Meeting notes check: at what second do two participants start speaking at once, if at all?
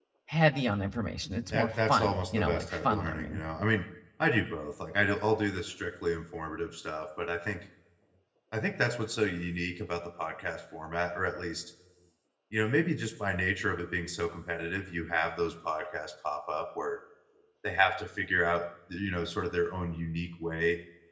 2 s

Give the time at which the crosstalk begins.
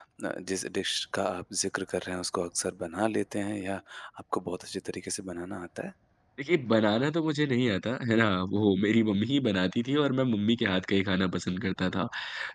none

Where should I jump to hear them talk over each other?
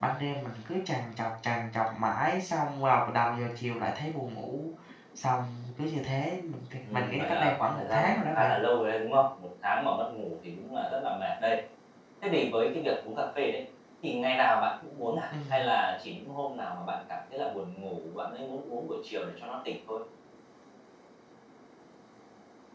7 s

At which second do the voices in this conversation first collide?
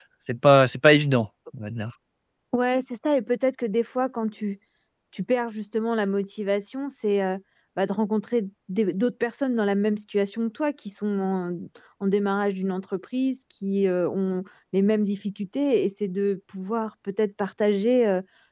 none

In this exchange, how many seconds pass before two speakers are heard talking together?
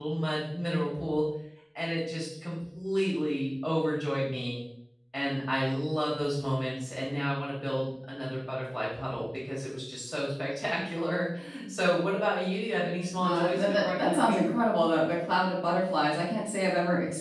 13 s

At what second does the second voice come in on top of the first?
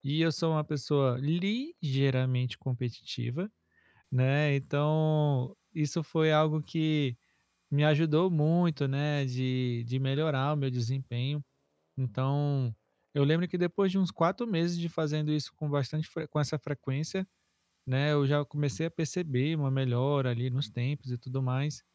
none

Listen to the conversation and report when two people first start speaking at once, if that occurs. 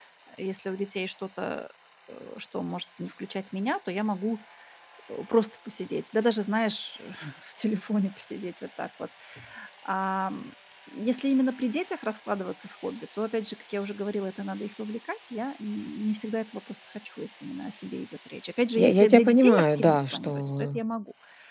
19 s

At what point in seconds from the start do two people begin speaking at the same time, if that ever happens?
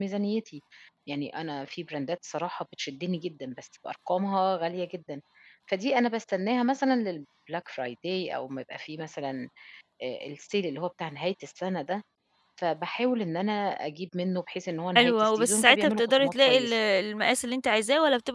15 s

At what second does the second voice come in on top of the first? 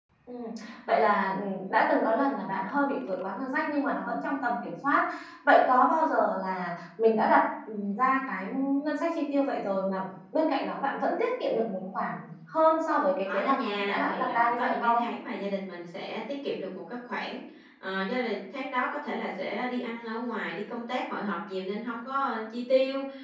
13 s

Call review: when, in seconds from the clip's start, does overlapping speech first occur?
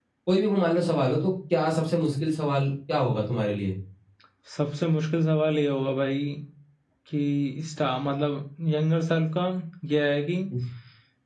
none

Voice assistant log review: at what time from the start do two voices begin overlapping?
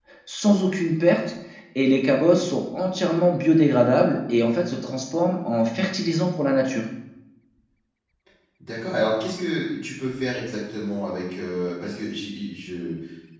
none

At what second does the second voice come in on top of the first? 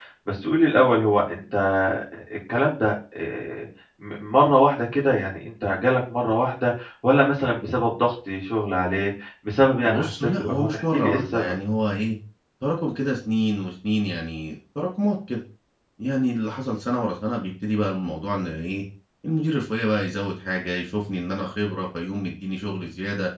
10 s

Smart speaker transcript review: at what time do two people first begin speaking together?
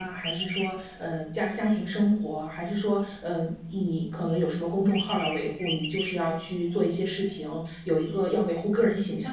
none

